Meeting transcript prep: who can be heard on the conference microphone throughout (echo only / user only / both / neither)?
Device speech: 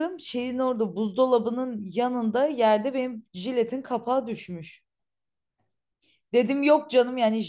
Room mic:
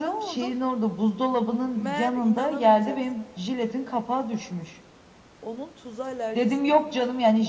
both